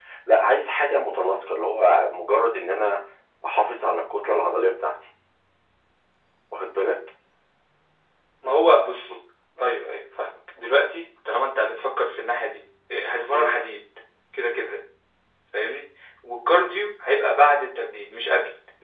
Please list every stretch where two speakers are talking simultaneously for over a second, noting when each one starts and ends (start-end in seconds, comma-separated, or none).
none